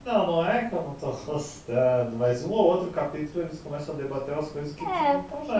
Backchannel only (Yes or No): No